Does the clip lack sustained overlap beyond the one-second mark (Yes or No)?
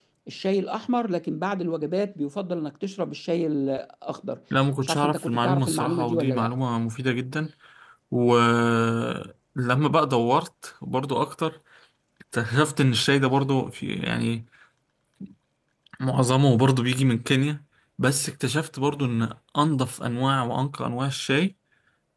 No